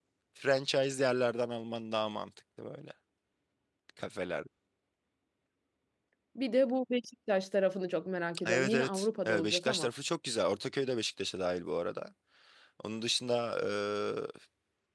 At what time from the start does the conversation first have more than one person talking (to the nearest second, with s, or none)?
8 s